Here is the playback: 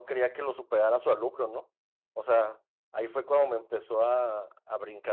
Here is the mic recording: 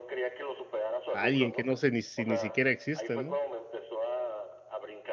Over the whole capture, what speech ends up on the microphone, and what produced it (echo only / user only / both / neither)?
both